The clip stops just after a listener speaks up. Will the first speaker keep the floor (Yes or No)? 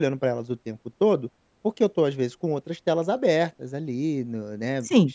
No